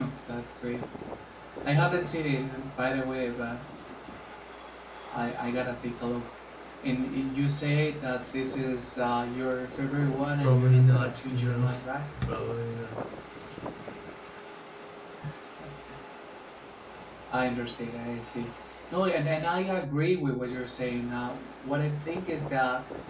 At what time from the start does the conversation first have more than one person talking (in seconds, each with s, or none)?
10.4 s